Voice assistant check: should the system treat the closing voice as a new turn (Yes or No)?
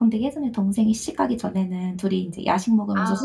No